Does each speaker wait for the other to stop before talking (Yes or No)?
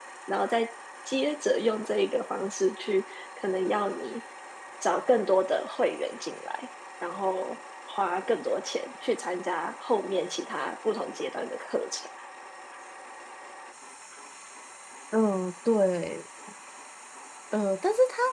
Yes